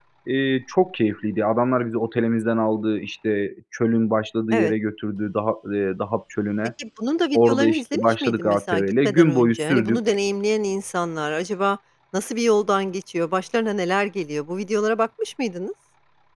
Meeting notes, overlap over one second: present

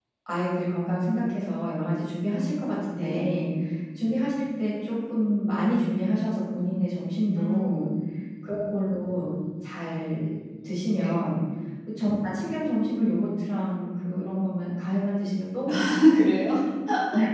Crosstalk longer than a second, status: none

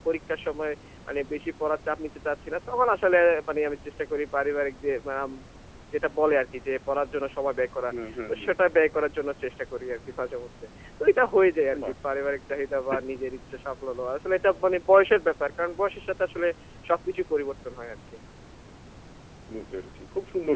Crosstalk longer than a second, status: none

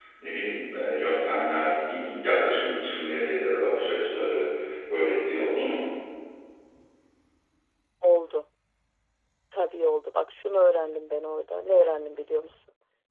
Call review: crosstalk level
none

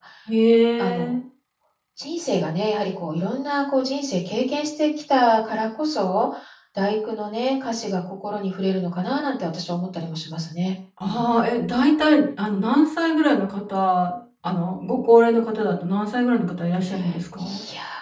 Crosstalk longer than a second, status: none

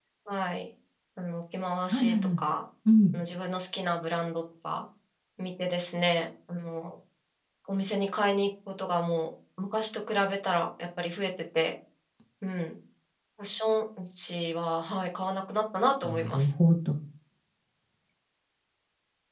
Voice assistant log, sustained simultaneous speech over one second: none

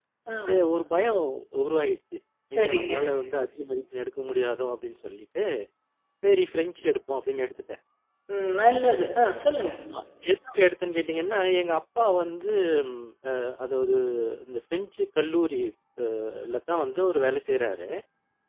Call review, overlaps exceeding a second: none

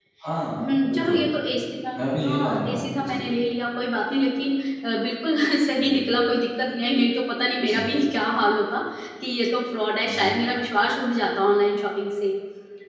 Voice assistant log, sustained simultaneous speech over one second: present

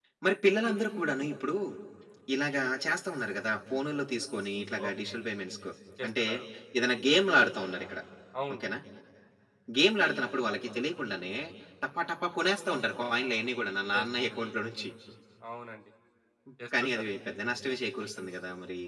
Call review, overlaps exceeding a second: none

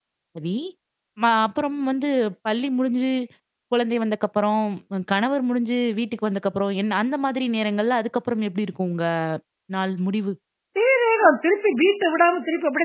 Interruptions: none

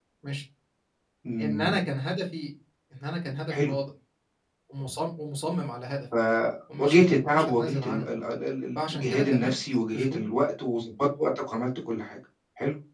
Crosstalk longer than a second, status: present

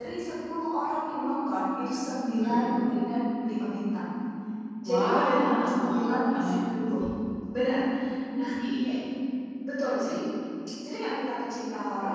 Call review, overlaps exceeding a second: present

